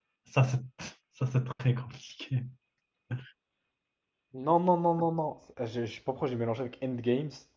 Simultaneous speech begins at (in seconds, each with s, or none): none